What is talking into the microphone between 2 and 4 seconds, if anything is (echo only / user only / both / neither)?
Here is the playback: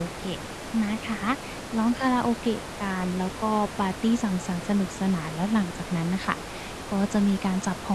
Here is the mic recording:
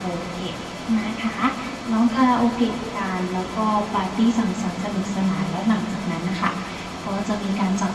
echo only